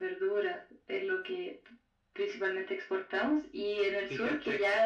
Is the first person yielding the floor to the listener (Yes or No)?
No